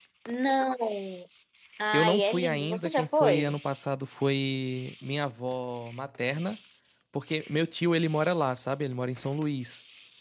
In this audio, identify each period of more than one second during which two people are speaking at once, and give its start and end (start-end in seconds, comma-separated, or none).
1.9-3.5